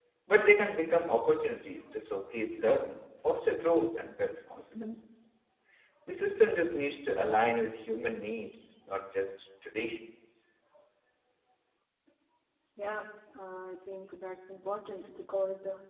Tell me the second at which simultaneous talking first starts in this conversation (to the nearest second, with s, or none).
none